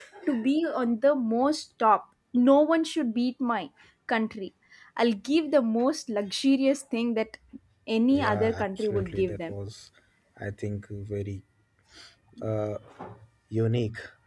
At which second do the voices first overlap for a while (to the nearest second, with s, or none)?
8 s